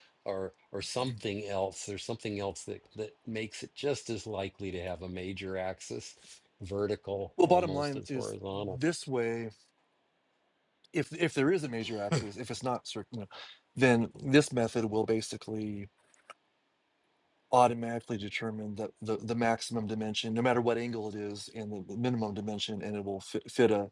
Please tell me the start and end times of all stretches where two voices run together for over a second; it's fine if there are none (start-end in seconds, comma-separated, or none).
7.4-8.8